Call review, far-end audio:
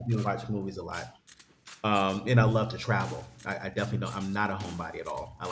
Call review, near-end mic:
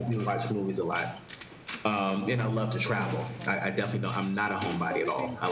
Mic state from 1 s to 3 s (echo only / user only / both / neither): both